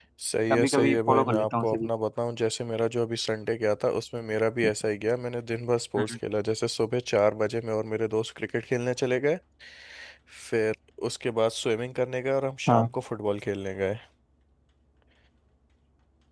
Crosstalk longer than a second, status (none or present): present